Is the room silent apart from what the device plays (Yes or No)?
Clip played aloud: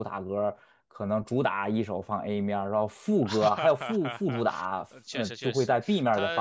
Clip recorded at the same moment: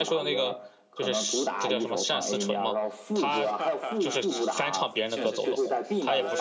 No